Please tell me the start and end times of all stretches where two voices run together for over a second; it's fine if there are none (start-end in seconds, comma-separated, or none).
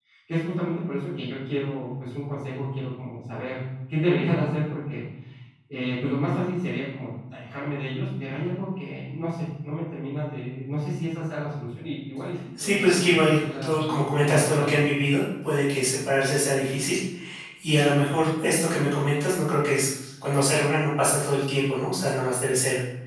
12.6-14.8